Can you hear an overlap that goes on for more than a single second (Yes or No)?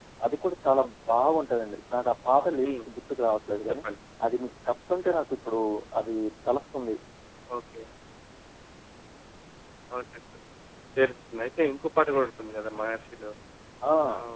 No